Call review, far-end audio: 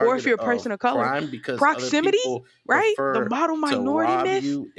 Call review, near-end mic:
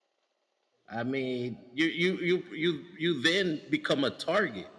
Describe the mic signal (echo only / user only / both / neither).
user only